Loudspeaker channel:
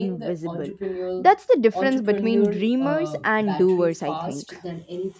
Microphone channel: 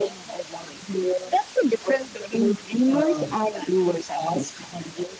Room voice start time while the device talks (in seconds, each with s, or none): none